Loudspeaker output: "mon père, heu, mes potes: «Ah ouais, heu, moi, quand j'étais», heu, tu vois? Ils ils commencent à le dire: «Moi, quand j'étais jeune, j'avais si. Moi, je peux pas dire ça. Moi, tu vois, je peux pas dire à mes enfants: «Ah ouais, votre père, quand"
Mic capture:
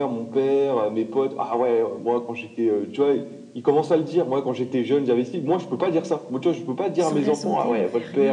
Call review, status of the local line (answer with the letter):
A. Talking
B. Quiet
A